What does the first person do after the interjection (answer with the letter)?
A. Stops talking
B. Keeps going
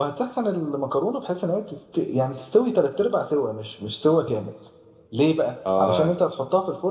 B